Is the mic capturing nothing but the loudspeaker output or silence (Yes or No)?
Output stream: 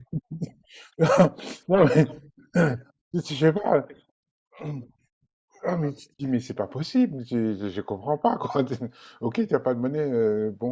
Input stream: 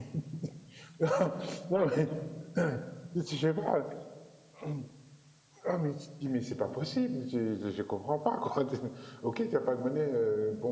Yes